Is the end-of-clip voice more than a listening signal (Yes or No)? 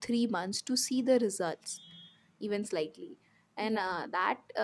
No